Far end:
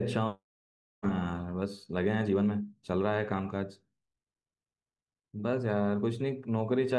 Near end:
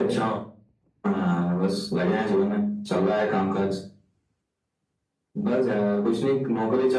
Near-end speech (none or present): none